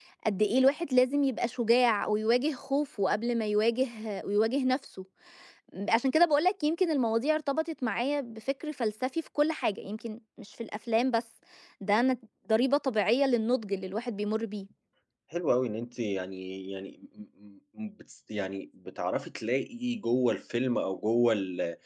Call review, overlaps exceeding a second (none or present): none